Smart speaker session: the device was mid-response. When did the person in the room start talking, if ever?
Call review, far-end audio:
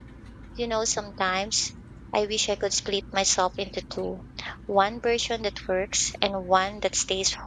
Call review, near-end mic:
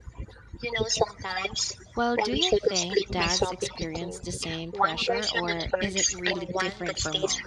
2.0 s

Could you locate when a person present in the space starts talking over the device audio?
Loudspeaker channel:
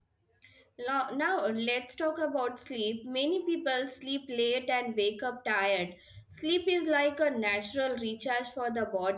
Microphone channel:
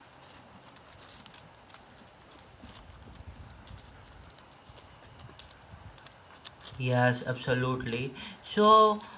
6.8 s

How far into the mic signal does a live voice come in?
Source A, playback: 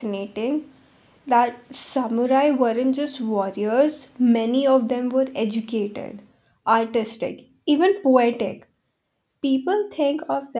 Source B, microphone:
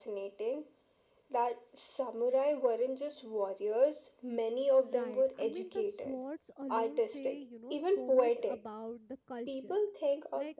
4.8 s

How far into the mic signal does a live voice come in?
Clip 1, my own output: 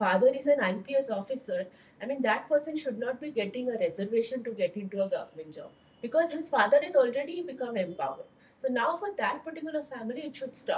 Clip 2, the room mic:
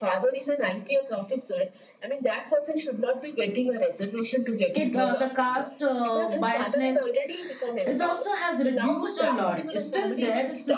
4.7 s

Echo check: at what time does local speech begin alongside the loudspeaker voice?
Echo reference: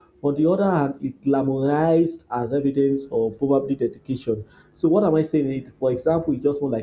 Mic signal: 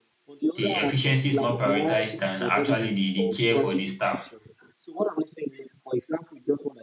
0.5 s

